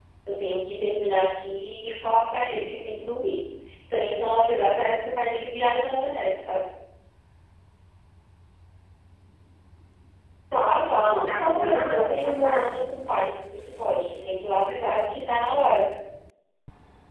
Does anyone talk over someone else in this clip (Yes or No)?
Yes